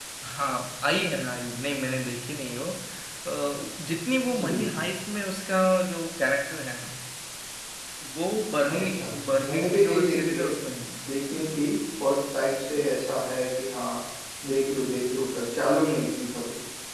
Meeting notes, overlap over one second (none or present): present